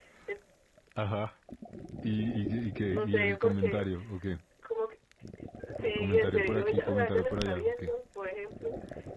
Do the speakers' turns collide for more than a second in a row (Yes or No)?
Yes